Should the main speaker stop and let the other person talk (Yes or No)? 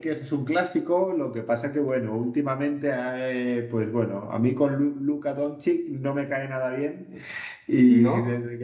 No